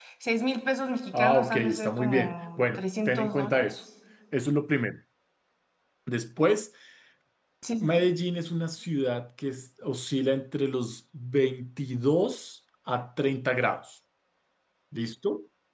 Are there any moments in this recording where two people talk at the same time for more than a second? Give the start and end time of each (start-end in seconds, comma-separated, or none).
1.1-3.7